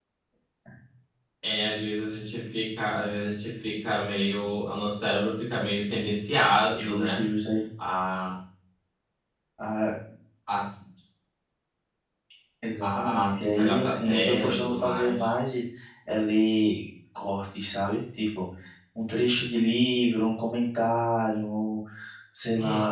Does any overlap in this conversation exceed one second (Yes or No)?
Yes